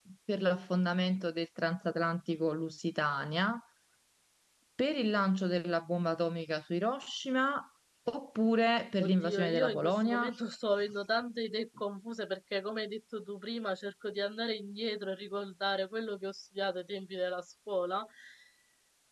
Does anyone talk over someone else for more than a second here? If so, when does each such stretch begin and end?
9.0-10.3

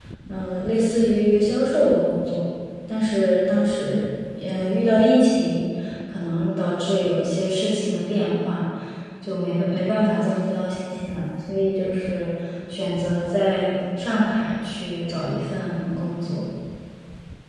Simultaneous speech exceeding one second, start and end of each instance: none

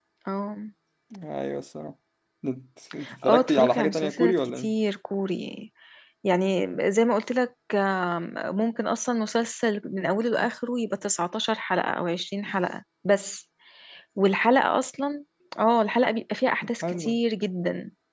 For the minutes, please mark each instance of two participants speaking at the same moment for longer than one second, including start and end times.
3.2-4.7

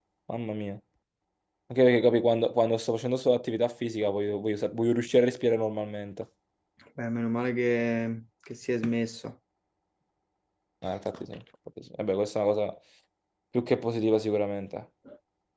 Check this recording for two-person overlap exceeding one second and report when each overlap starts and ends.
none

